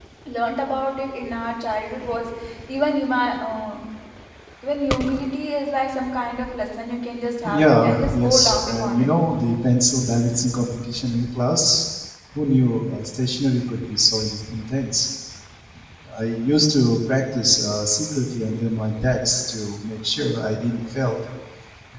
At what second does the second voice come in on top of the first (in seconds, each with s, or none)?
7.4 s